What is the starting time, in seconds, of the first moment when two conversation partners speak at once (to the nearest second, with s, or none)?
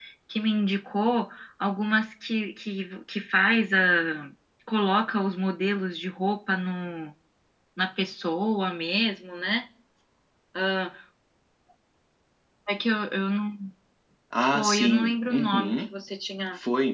15 s